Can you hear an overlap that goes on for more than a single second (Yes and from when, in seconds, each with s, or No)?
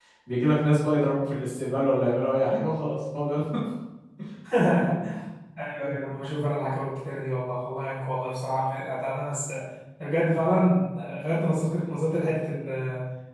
No